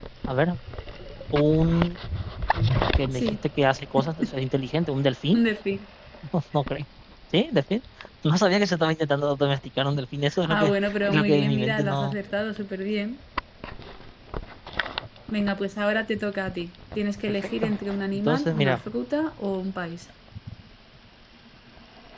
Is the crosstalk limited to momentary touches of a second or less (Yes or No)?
No